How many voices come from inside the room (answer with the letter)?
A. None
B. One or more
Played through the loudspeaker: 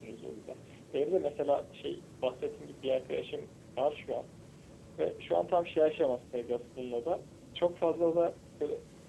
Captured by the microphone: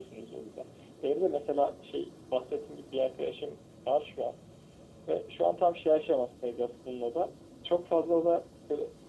A